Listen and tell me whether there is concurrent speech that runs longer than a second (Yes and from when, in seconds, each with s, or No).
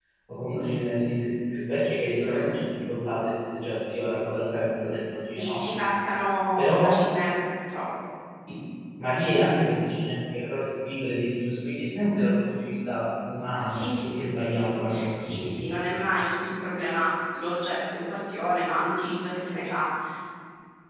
No